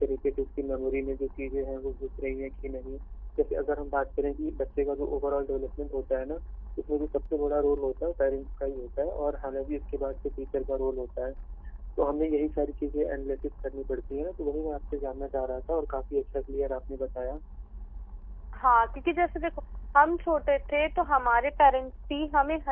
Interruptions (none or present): none